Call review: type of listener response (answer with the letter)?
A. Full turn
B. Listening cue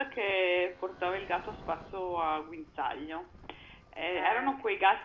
B